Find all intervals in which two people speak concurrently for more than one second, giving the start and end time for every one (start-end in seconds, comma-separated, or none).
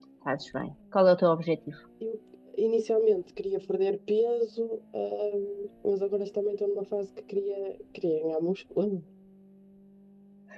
none